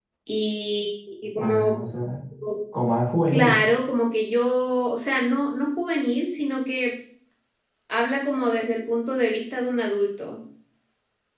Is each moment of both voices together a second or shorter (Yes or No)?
Yes